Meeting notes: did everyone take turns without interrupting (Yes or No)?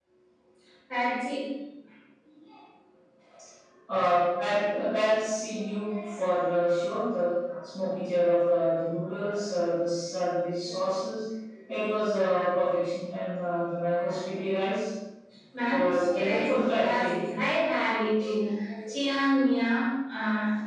No